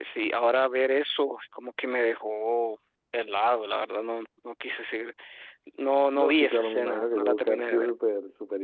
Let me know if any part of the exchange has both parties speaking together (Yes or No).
Yes